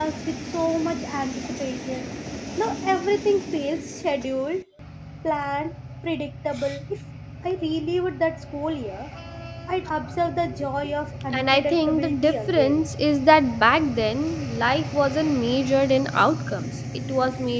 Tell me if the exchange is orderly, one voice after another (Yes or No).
No